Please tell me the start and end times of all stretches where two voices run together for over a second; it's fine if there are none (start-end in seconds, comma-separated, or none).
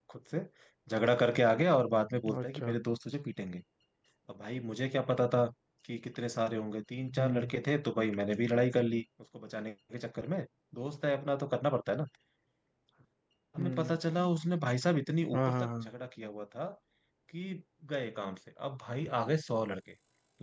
none